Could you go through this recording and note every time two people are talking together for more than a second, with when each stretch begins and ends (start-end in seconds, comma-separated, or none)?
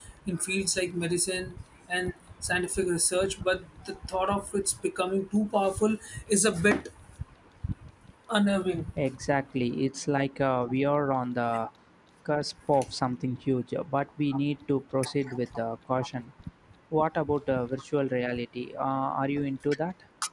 none